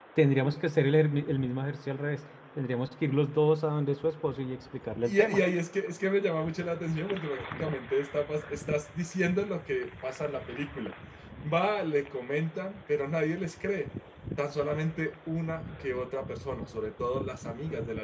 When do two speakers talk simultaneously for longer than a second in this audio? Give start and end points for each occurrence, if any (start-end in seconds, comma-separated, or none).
none